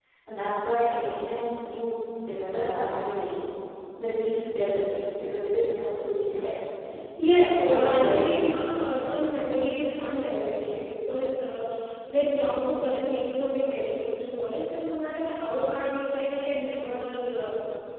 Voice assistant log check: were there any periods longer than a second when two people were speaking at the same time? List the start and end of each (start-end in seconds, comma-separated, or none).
7.4-8.7